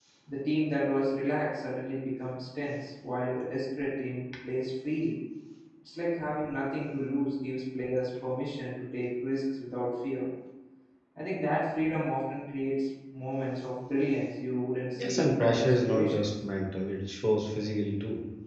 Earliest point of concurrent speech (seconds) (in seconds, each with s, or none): 15.0 s